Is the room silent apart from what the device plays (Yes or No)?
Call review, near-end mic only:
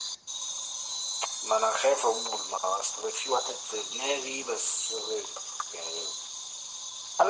Yes